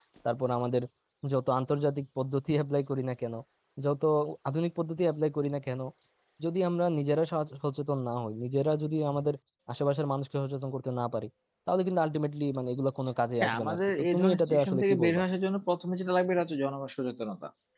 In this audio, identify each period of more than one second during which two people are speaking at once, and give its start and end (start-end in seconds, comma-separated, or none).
13.4-15.2